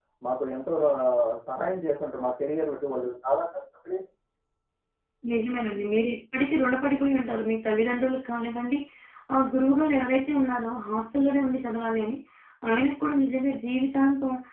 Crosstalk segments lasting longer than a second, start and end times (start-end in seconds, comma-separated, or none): none